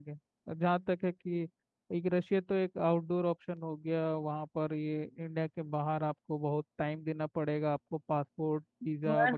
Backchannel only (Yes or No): No